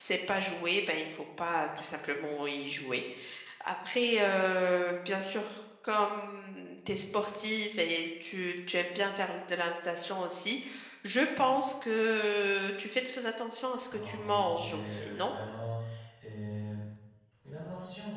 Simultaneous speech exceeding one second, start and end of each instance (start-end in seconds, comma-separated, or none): 13.9-15.3